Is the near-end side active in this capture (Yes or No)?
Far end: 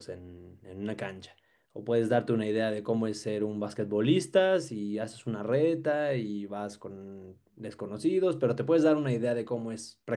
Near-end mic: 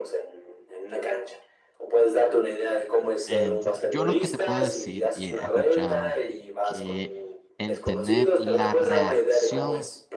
Yes